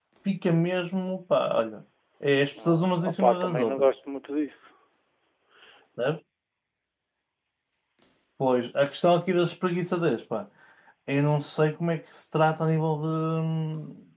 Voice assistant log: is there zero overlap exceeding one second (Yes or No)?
No